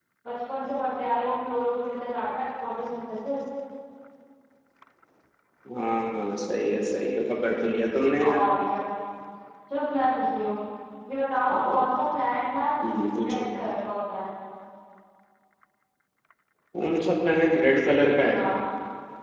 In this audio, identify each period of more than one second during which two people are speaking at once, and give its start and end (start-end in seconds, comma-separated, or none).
none